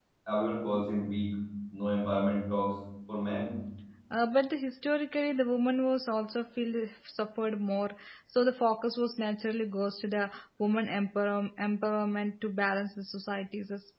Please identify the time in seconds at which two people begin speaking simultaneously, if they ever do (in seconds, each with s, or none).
none